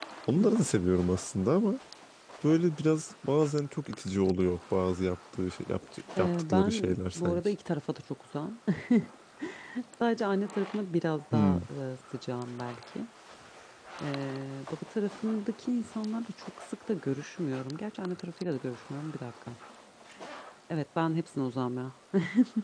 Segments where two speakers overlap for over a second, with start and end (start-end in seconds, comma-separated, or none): 6.2-7.5